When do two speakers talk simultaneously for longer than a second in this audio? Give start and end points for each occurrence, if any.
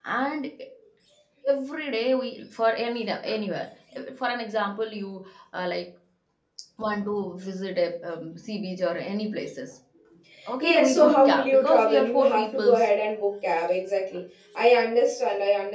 10.6-12.9

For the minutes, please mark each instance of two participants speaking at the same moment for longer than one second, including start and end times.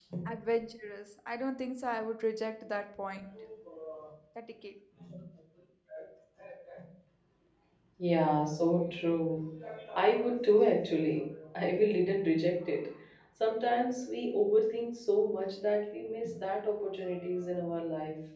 none

